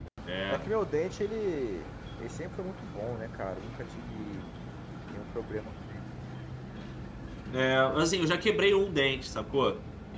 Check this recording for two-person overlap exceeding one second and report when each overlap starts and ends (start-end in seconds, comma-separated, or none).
none